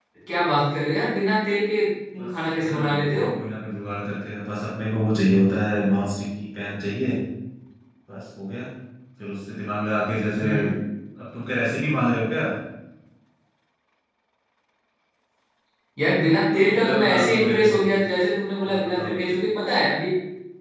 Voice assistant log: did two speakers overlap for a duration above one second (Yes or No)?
Yes